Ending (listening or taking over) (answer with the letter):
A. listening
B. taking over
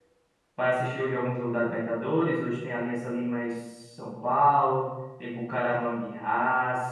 A